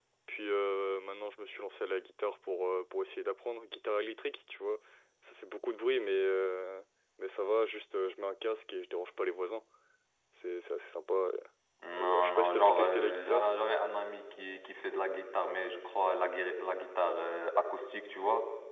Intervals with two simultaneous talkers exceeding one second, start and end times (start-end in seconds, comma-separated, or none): 12.0-13.5